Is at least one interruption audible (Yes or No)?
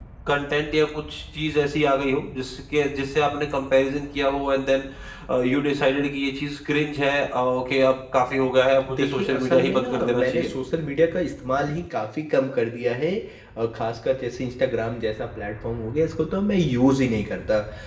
Yes